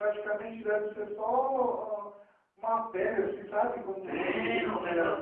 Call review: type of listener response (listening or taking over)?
taking over